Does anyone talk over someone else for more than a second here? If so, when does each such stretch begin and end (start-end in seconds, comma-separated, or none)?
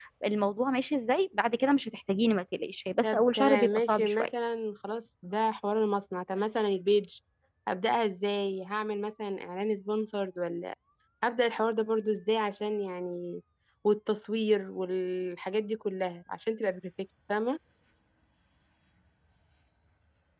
3.0-4.3